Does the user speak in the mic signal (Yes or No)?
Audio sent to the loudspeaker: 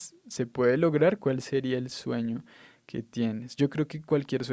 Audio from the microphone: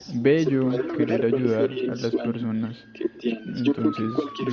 Yes